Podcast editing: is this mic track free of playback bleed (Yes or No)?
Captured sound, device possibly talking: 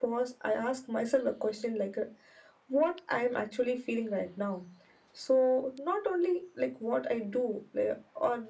No